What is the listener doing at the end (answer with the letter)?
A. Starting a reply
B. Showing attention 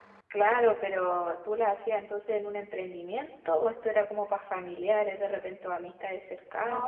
A